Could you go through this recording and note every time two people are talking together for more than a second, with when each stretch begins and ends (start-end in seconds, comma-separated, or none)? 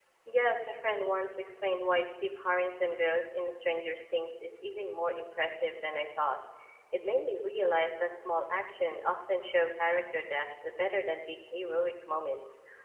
none